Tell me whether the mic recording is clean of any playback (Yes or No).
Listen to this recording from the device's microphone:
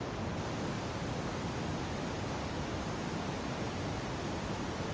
Yes